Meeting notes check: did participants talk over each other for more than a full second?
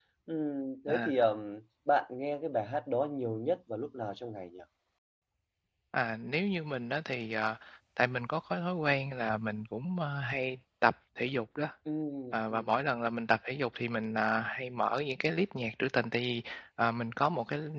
No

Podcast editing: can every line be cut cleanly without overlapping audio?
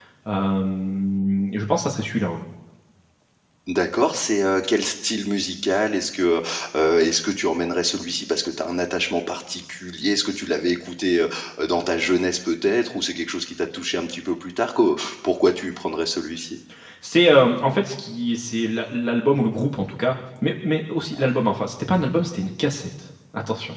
Yes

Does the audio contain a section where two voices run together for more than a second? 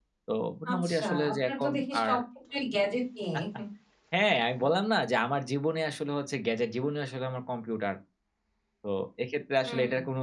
Yes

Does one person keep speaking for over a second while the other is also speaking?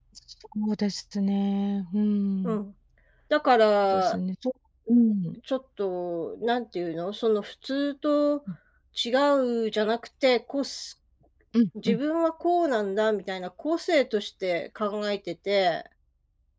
No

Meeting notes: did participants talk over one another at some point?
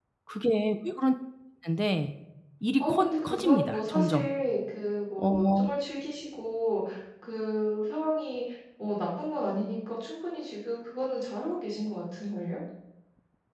Yes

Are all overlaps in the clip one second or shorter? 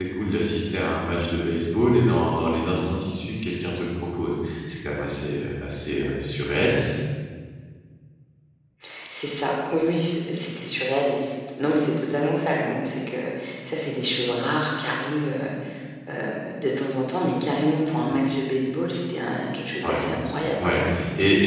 Yes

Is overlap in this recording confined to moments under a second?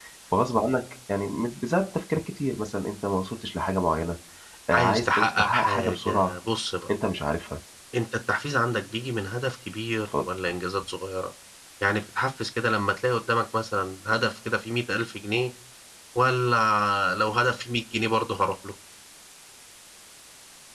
No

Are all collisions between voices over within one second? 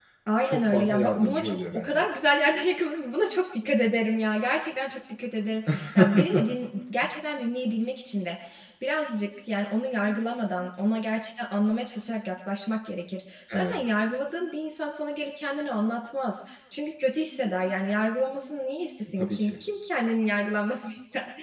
No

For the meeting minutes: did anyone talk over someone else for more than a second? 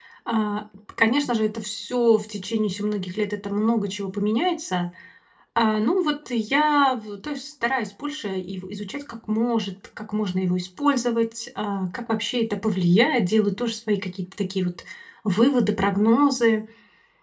No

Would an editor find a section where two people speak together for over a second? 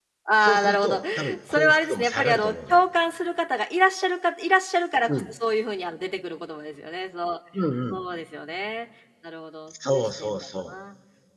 Yes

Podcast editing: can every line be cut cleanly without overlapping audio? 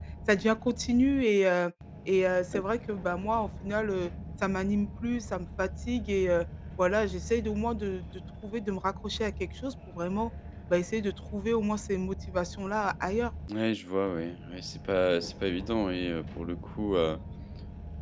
Yes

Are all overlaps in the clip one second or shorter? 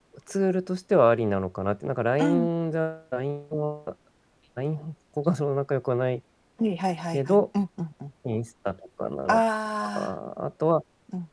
Yes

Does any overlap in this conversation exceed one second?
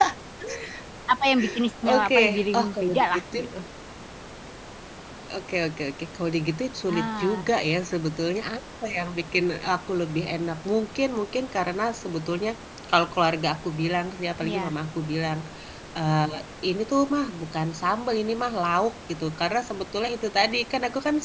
Yes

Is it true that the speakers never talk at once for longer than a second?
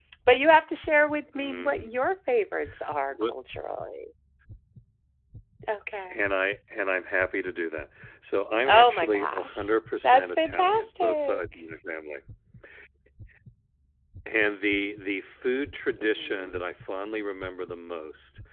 No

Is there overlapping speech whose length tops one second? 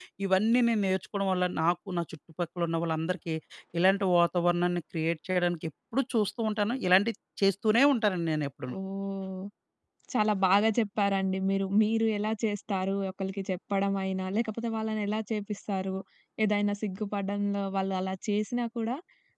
No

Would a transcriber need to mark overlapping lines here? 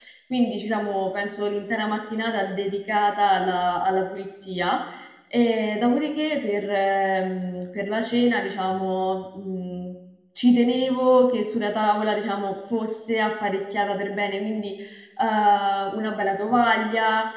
No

